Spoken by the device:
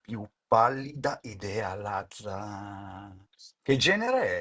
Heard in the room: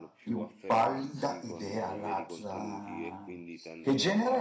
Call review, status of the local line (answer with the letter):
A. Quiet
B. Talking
B